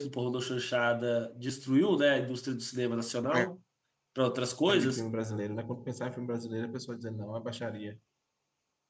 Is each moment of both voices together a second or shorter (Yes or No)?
Yes